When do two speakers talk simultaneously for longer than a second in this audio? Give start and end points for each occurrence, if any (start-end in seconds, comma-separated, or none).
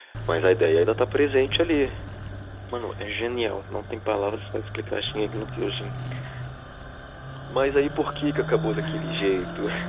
none